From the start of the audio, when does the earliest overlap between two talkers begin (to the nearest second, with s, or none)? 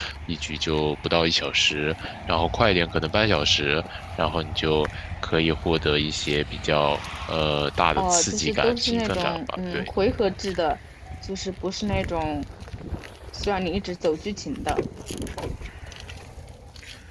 8 s